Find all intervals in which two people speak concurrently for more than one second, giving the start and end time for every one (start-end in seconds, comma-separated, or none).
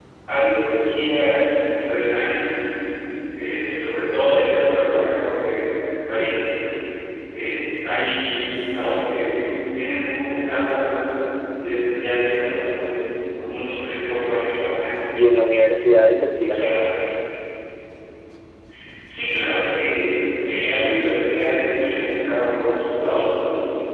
none